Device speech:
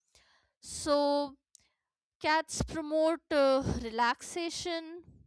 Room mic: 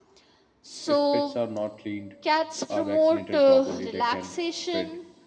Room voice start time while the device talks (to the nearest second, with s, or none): 1 s